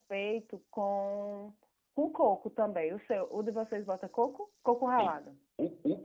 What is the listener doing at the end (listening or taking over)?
taking over